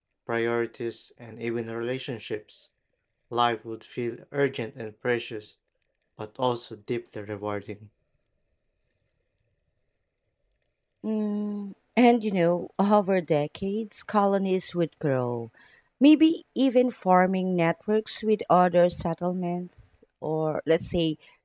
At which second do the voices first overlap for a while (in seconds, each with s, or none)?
none